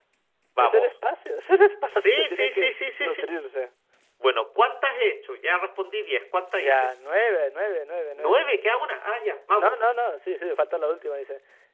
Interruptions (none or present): present